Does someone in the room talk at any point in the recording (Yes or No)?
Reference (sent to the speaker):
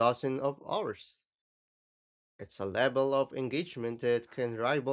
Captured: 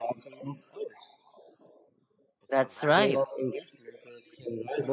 Yes